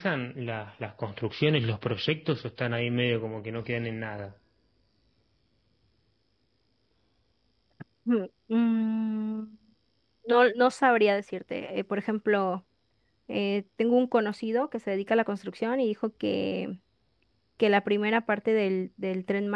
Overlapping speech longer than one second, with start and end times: none

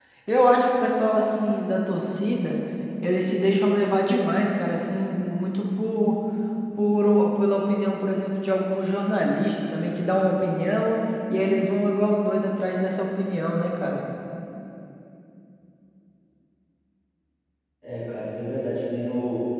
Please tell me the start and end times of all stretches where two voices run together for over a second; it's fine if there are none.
none

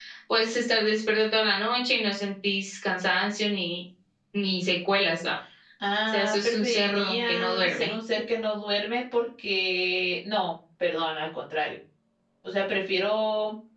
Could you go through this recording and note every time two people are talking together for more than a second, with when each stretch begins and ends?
6.1-7.9

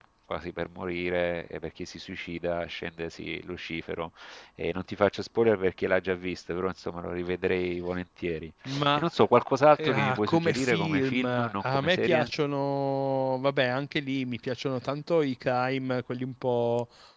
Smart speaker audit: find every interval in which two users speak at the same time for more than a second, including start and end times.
9.8-12.3

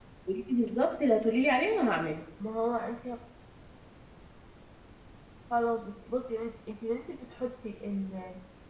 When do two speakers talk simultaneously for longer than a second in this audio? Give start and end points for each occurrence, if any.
none

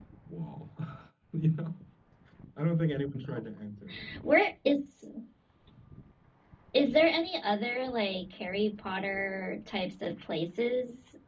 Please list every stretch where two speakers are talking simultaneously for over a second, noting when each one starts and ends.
none

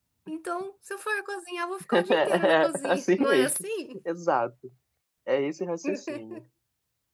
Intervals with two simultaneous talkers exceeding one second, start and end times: 1.9-3.5

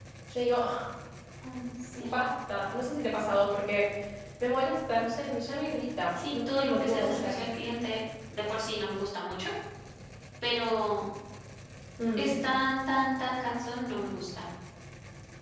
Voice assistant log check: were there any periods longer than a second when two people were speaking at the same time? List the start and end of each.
6.1-7.4

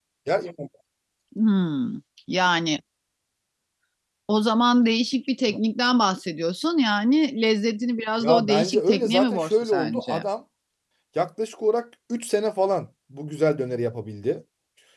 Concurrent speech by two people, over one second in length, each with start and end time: 8.2-10.2

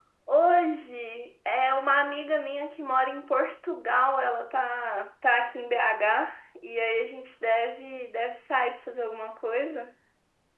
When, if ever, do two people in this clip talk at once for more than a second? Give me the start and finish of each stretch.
none

